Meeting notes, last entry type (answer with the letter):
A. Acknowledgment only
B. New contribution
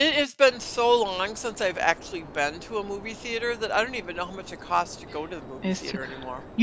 B